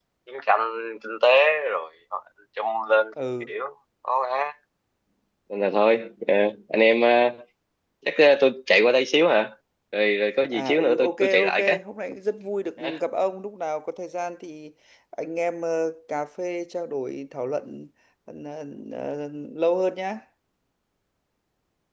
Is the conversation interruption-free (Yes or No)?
No